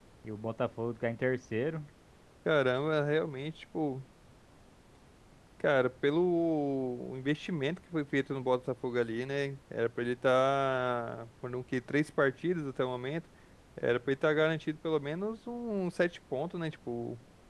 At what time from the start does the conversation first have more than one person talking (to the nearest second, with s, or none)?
none